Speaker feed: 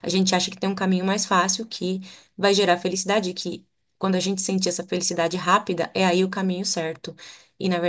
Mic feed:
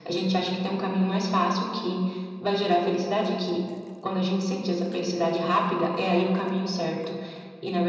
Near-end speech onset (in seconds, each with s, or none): none